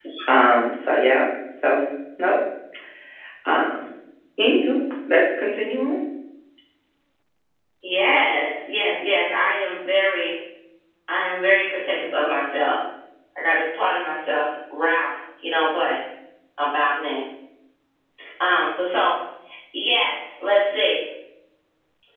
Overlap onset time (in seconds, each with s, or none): none